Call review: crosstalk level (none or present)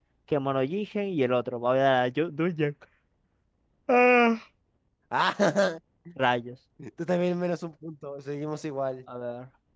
none